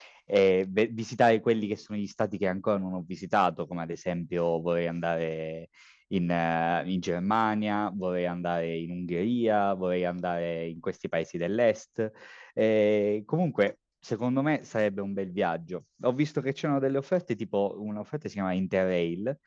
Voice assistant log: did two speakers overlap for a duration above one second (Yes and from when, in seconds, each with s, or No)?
No